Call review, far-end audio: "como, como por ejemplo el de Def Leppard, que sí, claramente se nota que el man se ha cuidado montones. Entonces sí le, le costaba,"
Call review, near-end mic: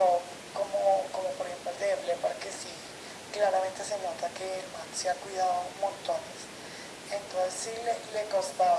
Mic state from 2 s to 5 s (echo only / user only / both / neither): echo only